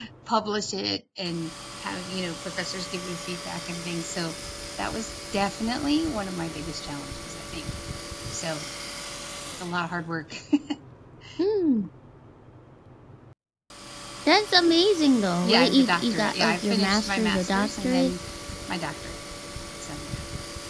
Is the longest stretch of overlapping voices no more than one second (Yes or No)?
No